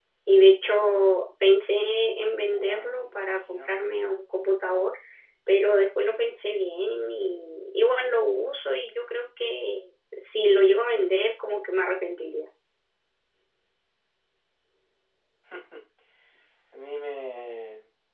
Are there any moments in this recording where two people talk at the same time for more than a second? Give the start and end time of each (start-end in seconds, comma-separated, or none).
2.3-3.7